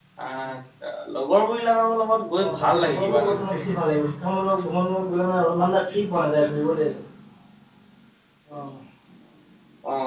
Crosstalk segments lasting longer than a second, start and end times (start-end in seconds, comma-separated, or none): 2.4-3.8